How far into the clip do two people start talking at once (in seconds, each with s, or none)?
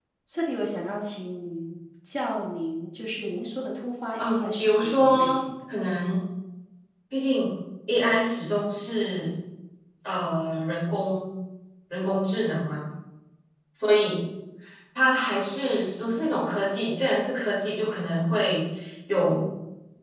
4.2 s